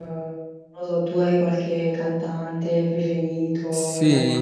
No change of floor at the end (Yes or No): No